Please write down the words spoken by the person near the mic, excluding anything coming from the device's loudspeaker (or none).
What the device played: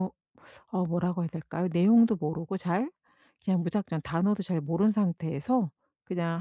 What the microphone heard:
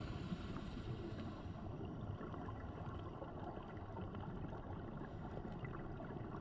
none